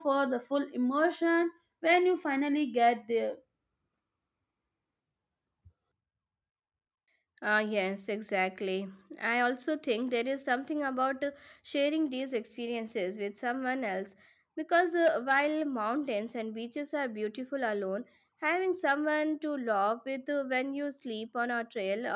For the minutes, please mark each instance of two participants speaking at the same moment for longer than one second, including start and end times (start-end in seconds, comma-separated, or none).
none